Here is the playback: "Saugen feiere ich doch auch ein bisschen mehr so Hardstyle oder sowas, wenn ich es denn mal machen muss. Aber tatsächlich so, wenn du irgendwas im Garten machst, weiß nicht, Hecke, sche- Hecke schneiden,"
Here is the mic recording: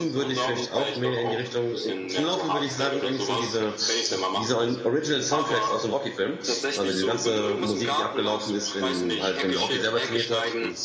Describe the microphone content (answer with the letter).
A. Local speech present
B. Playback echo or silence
A